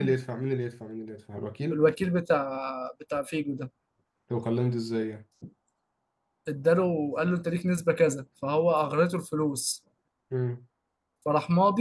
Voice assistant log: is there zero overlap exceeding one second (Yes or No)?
Yes